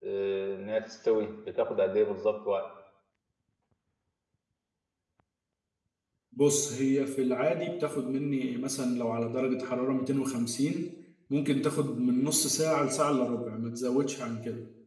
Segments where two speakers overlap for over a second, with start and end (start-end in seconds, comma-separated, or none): none